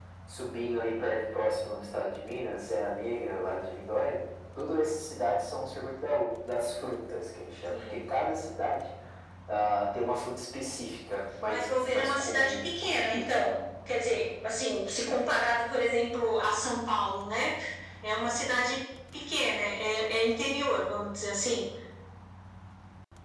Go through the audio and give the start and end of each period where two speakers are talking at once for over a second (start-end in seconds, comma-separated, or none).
11.5-13.3